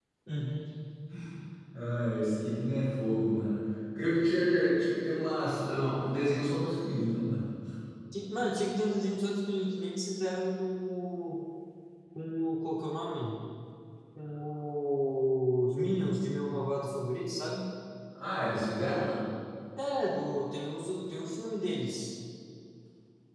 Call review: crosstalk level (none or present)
none